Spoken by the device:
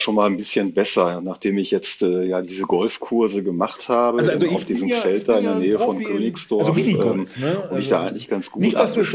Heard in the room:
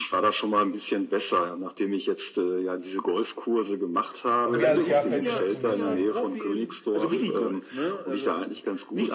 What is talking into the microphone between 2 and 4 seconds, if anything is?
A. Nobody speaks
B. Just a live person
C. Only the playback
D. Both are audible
C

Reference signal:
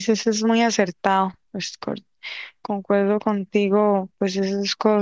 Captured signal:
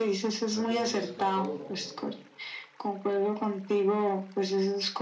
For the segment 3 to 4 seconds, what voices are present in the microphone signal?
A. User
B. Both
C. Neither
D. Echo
D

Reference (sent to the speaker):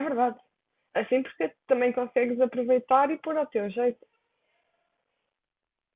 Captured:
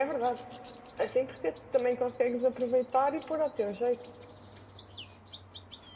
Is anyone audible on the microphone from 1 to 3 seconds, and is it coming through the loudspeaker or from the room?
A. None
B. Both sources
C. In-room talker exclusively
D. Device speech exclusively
D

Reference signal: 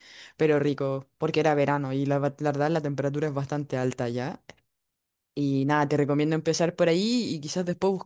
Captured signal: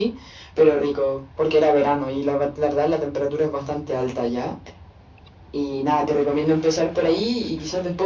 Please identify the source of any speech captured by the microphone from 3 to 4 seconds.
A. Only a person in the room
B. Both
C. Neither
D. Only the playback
D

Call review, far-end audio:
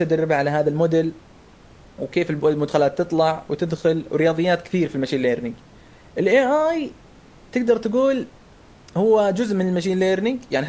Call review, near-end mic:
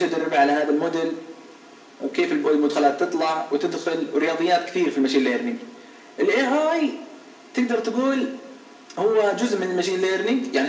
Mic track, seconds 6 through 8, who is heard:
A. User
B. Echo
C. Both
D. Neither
B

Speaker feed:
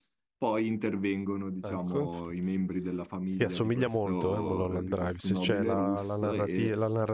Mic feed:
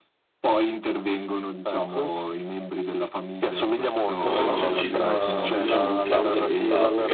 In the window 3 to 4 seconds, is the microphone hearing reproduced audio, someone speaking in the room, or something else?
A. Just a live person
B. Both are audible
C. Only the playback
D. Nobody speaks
C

